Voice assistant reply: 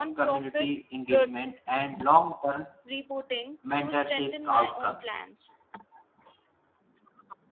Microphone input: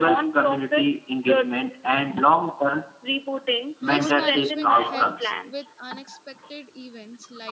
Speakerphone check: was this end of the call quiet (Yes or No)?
No